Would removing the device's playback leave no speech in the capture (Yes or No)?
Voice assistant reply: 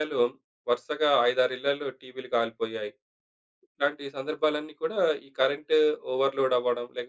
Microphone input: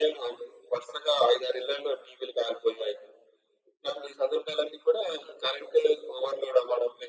Yes